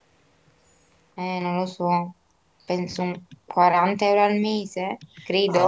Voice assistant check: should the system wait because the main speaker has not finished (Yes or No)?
No